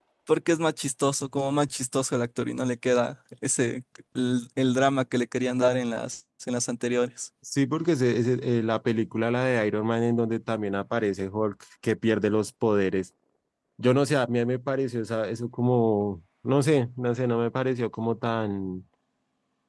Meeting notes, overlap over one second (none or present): none